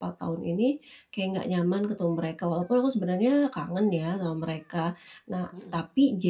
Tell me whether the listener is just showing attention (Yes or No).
Yes